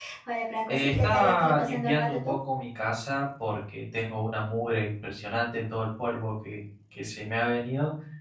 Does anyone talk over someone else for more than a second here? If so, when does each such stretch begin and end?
0.7-2.4

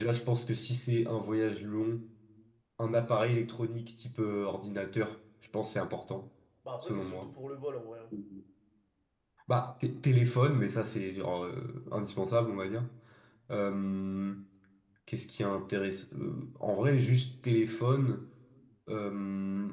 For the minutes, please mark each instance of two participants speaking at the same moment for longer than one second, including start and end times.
none

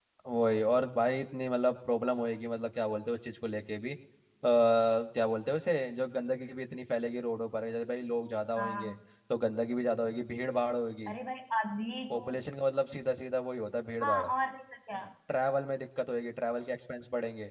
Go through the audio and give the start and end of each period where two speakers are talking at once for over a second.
none

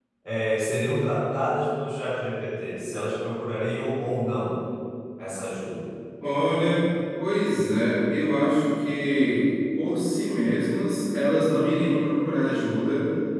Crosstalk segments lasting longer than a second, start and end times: none

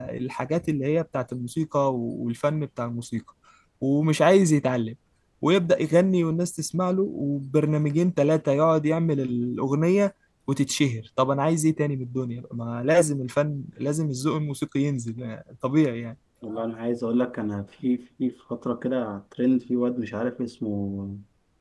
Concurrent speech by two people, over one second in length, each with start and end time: none

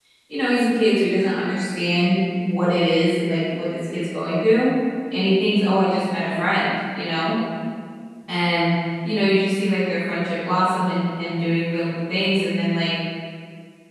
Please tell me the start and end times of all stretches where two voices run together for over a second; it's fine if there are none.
none

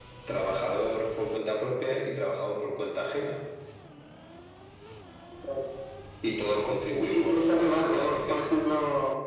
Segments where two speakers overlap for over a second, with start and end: 7.0-8.4

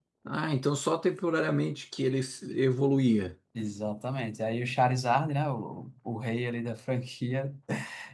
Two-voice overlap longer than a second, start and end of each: none

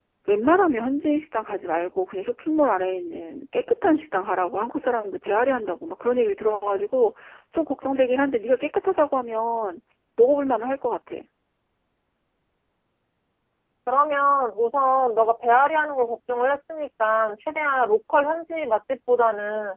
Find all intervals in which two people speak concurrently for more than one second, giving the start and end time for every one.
none

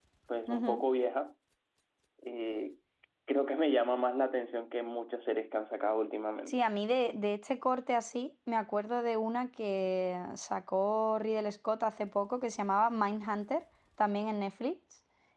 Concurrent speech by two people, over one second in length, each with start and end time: none

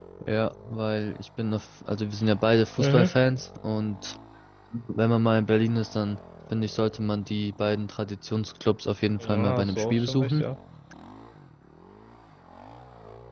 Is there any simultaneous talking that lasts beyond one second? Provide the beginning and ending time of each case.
9.2-10.4

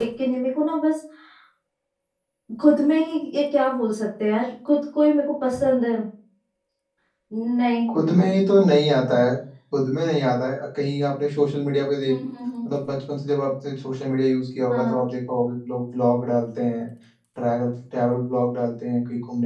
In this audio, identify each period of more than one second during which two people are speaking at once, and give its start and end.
none

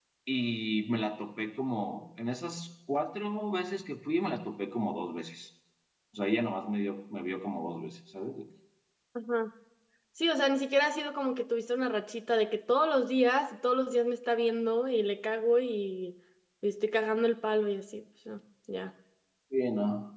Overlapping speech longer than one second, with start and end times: none

